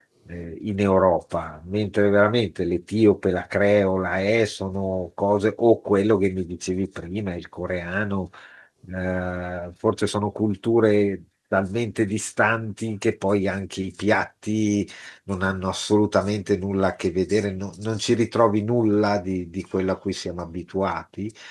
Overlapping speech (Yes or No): No